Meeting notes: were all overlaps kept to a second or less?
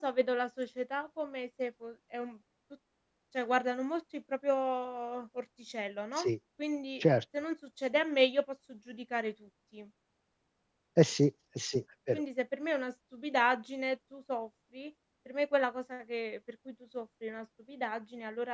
Yes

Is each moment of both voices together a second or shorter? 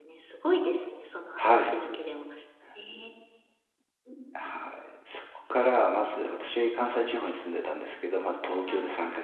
Yes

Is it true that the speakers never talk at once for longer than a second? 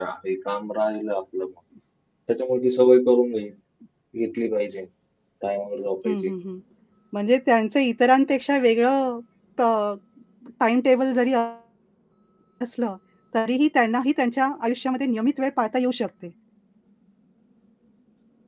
Yes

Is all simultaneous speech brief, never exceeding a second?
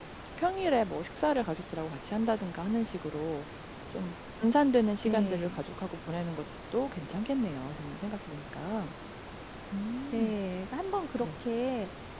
Yes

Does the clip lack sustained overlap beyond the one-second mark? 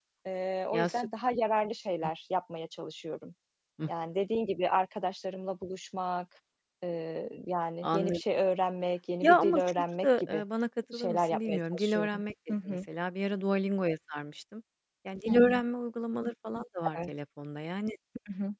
No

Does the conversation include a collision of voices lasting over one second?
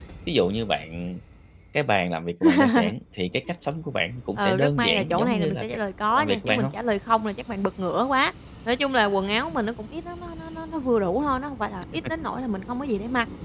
Yes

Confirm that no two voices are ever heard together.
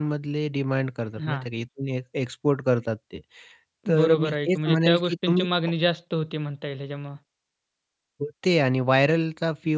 No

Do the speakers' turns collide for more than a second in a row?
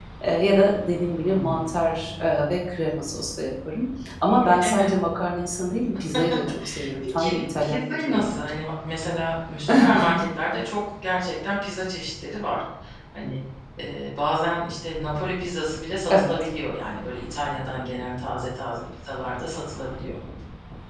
Yes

